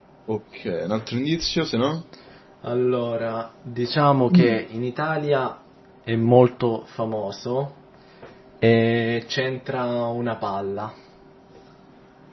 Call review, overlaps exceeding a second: none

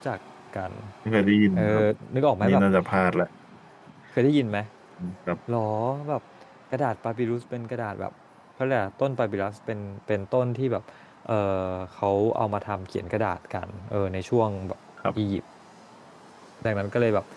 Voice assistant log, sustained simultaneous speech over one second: none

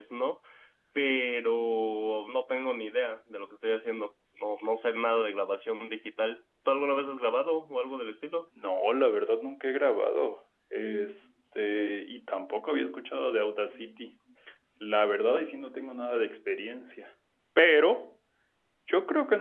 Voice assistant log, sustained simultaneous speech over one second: none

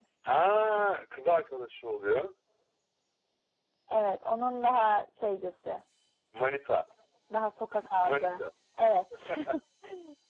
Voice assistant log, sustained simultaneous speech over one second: none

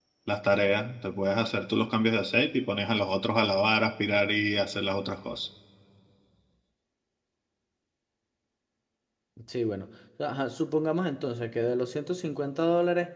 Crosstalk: none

